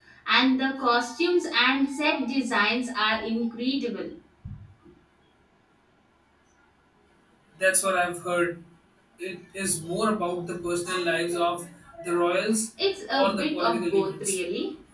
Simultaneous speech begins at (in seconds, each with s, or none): 13.1 s